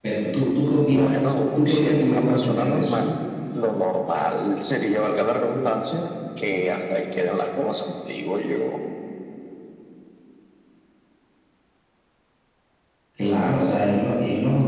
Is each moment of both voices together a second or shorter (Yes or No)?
No